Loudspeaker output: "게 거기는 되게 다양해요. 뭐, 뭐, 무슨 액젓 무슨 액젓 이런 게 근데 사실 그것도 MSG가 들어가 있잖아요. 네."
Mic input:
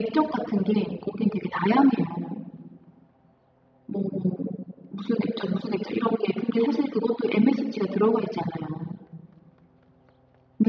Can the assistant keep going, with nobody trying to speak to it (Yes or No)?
Yes